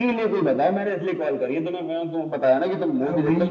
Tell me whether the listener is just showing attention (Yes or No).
No